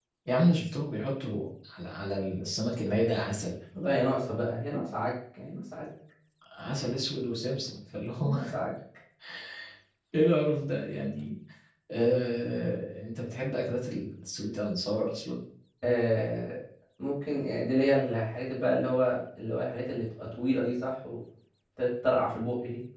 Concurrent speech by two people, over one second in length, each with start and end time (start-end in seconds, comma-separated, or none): none